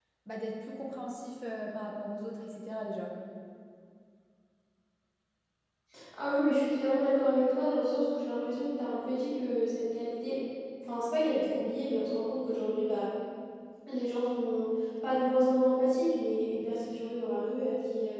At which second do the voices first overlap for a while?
none

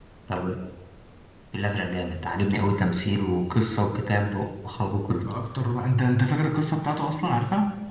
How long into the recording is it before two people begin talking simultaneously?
none

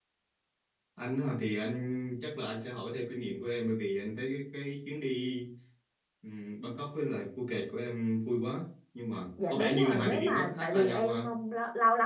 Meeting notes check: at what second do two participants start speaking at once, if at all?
9 s

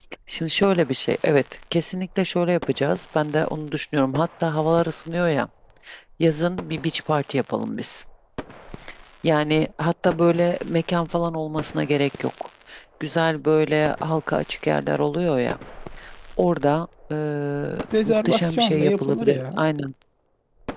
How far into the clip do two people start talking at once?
18 s

